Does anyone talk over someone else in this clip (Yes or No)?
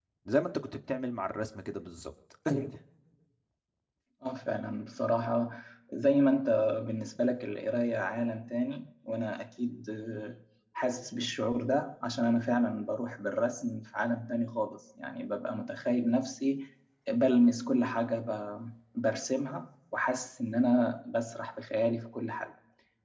No